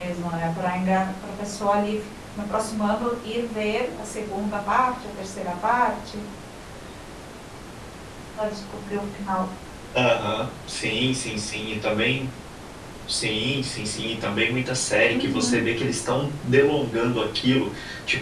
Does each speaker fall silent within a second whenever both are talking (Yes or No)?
Yes